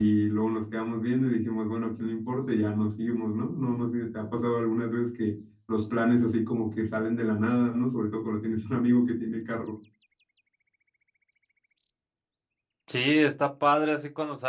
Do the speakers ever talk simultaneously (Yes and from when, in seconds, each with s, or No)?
No